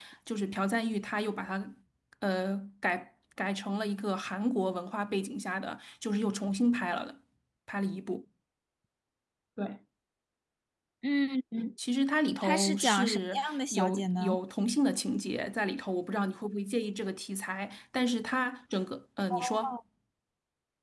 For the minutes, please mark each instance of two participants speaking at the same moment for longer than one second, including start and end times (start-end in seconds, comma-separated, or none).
12.4-14.4